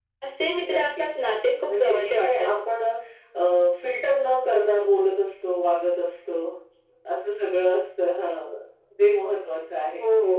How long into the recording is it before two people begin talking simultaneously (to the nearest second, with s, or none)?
1 s